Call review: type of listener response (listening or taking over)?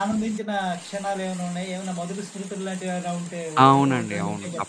taking over